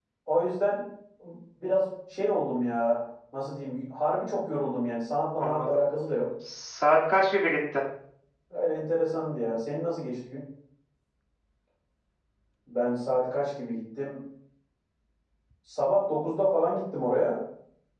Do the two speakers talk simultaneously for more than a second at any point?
No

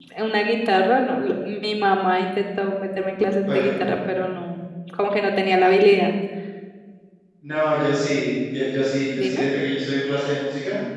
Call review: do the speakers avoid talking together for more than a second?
Yes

